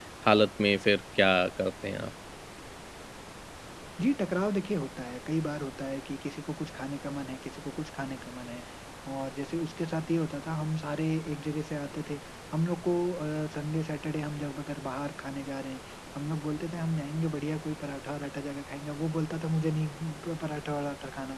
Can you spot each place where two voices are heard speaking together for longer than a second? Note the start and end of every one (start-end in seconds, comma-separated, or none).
none